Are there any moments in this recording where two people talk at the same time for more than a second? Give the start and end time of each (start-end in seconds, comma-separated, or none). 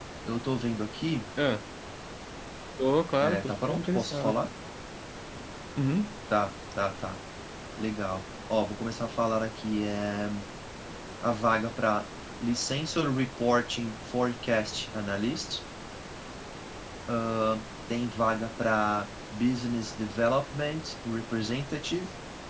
3.2-4.4